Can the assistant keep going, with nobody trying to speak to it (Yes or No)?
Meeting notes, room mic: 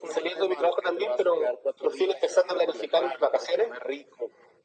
Yes